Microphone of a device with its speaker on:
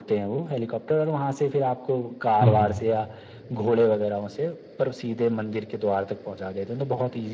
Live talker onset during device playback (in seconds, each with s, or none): 2.4 s